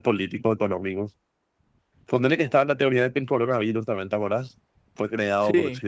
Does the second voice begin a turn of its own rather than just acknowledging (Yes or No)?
No